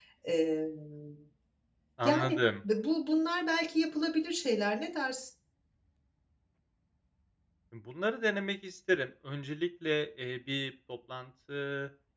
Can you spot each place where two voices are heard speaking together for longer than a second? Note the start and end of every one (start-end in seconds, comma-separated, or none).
none